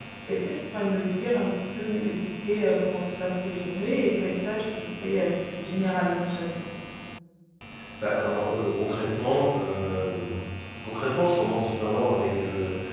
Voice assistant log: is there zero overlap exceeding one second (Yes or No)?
Yes